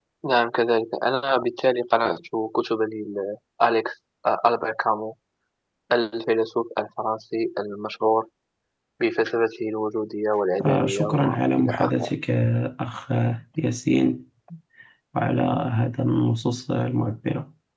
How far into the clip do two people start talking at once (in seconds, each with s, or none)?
10.6 s